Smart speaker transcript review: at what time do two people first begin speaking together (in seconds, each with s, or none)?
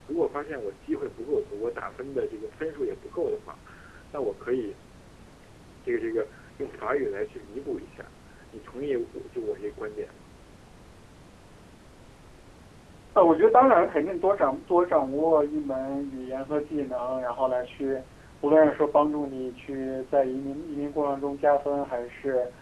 none